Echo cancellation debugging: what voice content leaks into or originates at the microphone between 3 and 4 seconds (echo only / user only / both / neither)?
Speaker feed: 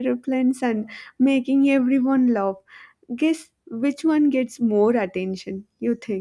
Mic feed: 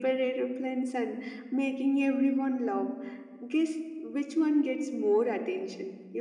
echo only